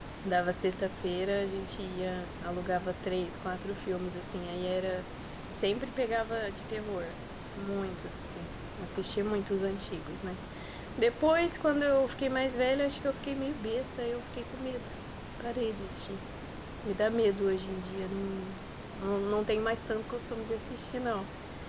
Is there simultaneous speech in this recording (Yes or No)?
No